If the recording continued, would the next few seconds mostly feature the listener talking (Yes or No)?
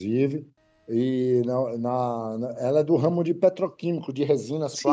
Yes